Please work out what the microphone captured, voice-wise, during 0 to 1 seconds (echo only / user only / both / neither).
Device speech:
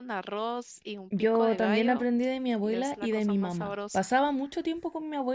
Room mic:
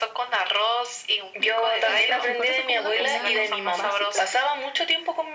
echo only